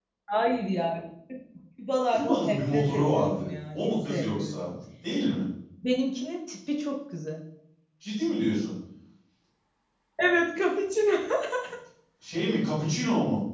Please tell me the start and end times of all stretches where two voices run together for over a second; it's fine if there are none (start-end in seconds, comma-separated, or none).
2.1-4.6